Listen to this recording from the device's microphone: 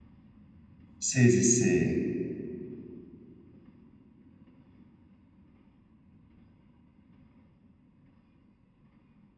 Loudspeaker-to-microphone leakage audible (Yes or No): No